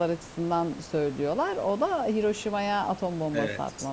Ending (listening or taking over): taking over